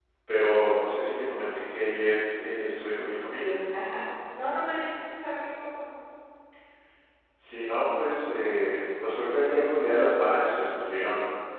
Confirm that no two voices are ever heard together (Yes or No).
Yes